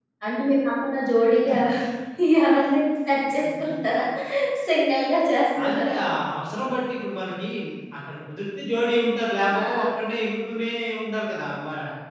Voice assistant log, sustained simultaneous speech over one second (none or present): none